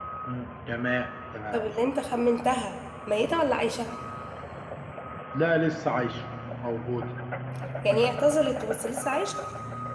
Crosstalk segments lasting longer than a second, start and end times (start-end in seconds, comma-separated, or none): none